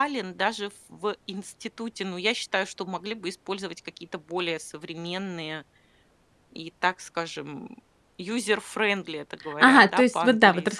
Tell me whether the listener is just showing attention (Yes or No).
No